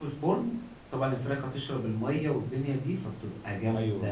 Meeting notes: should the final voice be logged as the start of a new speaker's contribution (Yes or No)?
No